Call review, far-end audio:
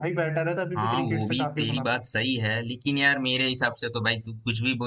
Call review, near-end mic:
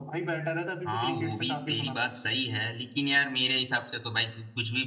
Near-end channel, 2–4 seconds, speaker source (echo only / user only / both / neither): echo only